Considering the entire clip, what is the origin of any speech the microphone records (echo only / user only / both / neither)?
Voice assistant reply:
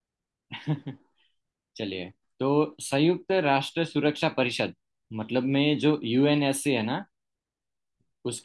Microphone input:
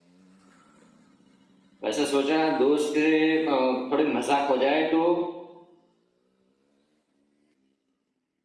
user only